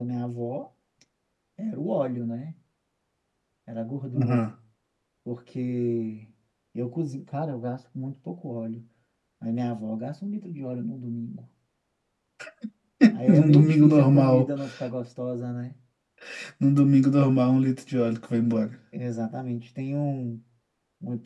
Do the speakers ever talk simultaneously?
Yes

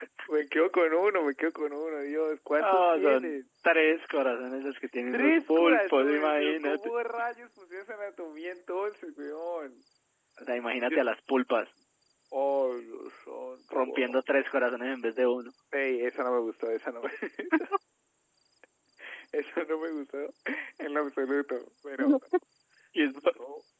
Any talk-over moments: Yes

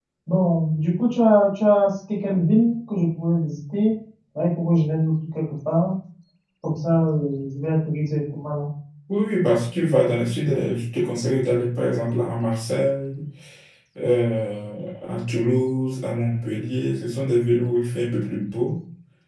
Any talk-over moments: No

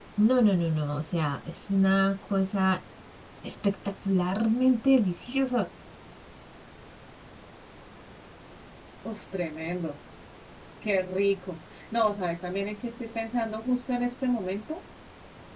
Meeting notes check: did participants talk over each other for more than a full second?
No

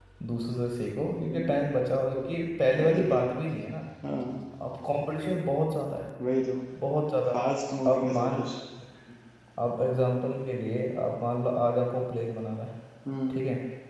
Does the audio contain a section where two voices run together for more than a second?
No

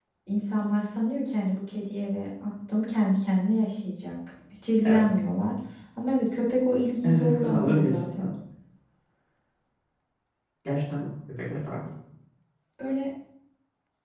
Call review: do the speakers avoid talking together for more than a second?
No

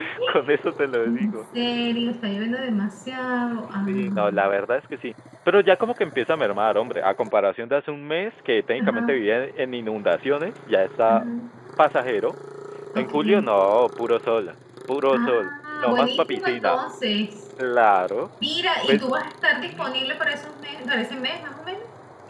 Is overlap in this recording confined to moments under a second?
No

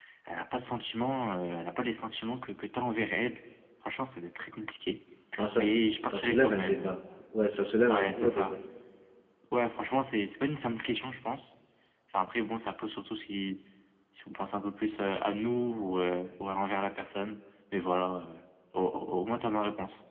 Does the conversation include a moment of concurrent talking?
Yes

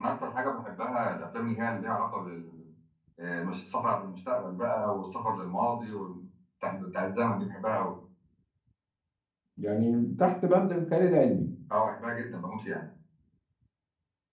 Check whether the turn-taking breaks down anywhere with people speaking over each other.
No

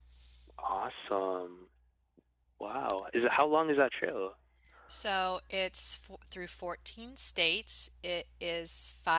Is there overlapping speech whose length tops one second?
No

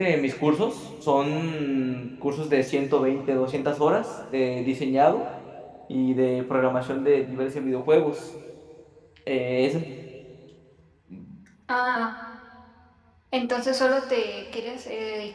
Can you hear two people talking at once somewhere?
No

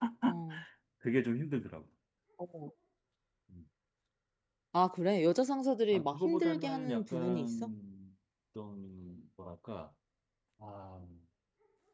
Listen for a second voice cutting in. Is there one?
Yes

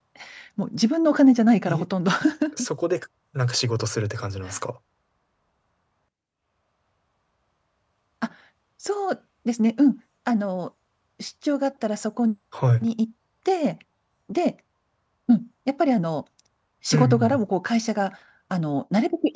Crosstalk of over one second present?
No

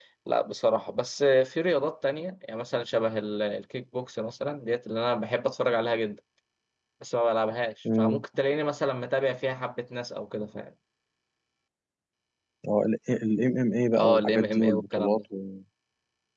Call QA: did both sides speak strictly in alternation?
No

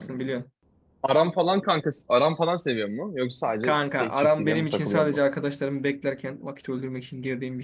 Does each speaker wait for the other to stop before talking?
No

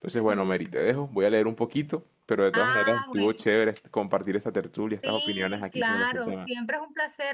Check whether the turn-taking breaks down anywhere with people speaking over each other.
Yes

